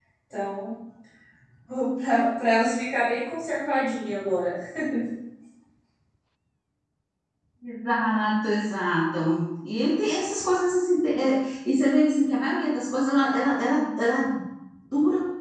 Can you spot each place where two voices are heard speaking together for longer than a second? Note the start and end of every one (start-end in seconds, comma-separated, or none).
none